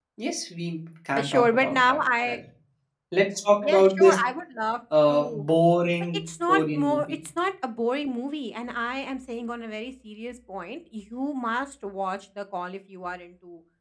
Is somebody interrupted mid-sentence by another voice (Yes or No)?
Yes